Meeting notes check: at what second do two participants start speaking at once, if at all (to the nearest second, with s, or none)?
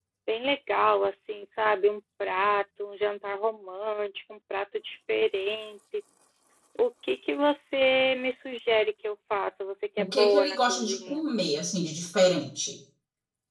10 s